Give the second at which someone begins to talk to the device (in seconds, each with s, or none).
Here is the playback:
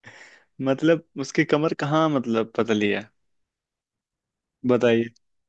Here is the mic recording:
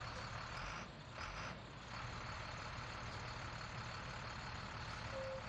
none